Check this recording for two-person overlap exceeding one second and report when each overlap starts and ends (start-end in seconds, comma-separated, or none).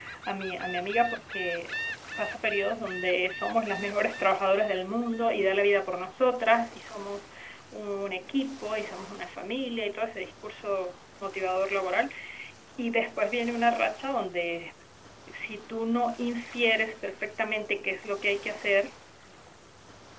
none